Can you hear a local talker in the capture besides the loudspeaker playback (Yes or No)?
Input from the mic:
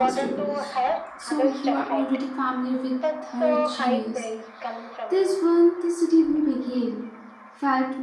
Yes